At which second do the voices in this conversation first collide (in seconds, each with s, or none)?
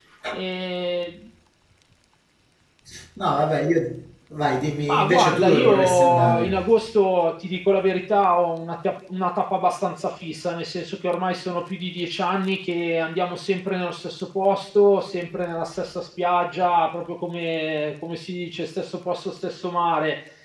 4.9 s